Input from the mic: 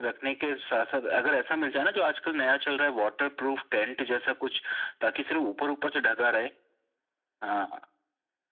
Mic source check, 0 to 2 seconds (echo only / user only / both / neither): echo only